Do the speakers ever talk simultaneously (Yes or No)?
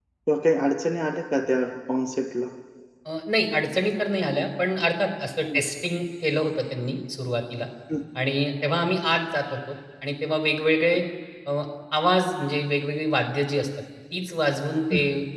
No